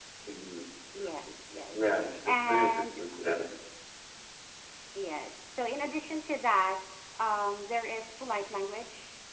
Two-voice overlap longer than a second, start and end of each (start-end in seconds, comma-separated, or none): 1.7-3.0